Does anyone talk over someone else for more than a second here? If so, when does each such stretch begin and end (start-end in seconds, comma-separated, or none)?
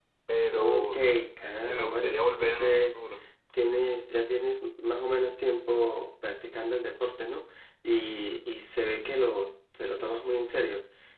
1.6-3.0